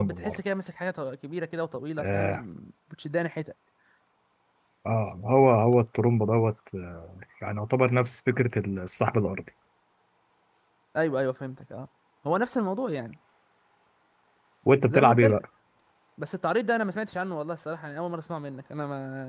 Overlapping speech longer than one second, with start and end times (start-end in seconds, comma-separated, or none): none